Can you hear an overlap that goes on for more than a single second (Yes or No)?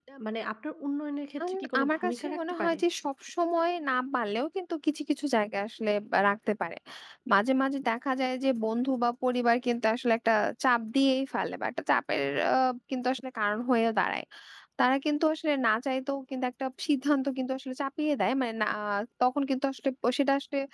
Yes